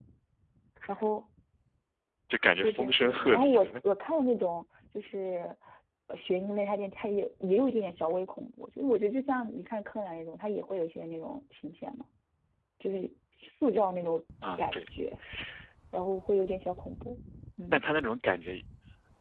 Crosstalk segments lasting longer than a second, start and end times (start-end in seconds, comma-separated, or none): 2.6-3.8